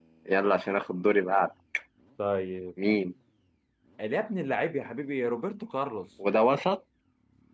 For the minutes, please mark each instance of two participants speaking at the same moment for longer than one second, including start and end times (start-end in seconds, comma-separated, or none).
none